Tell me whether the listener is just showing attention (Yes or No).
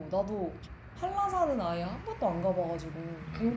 No